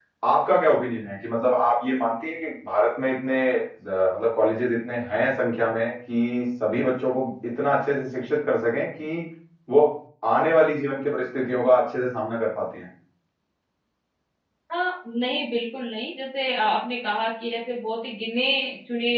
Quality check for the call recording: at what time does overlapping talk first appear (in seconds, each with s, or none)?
none